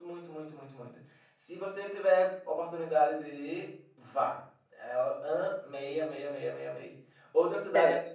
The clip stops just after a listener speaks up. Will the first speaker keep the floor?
Yes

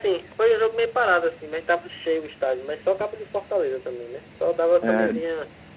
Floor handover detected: No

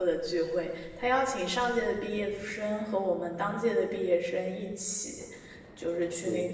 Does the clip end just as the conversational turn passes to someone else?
No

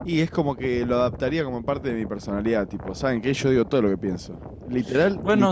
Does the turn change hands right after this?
Yes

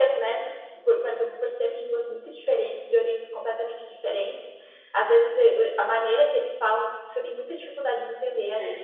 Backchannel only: Yes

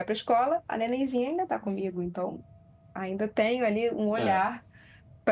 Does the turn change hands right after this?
No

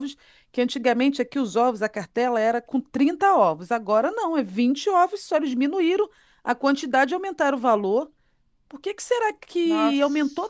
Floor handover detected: No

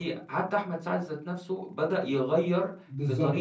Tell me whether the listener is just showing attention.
No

